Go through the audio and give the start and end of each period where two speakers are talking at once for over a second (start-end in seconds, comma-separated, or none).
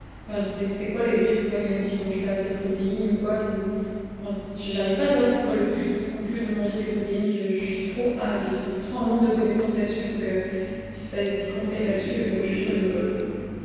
11.5-12.9